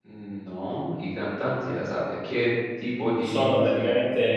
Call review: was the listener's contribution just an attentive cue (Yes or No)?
No